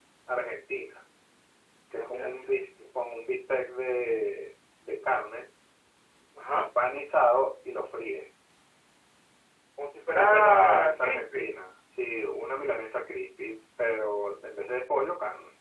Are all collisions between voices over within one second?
No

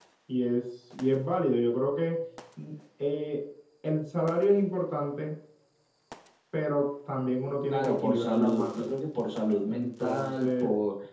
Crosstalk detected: Yes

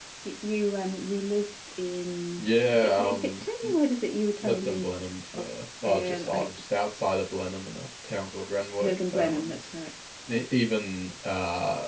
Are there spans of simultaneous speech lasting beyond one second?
Yes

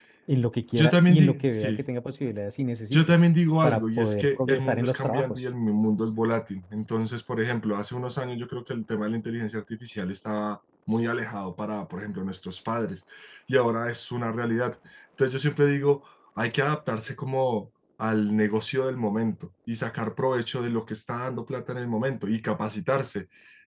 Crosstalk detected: Yes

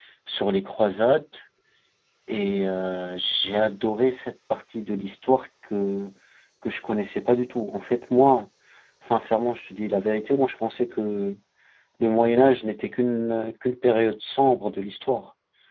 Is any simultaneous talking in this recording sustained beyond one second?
No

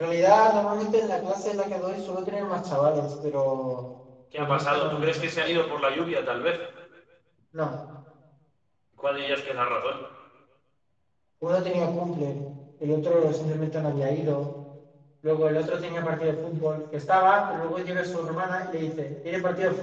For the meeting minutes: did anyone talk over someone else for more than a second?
Yes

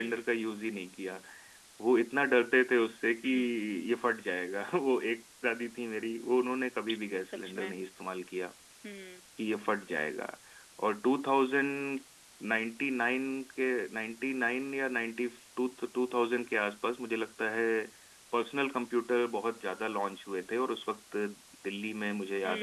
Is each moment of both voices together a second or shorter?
Yes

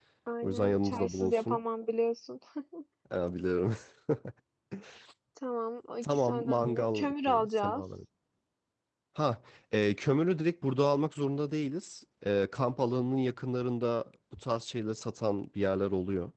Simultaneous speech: Yes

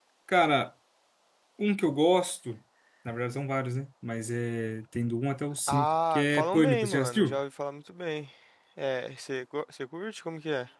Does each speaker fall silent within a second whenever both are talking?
No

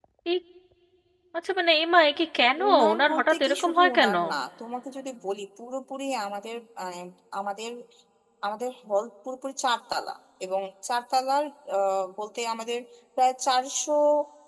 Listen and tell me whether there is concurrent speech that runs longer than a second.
Yes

